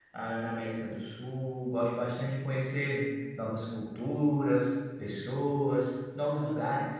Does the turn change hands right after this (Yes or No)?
No